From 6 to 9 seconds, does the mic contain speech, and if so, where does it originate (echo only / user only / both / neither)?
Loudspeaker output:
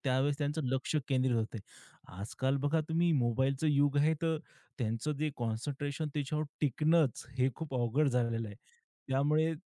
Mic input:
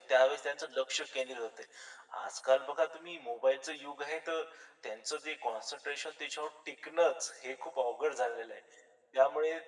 echo only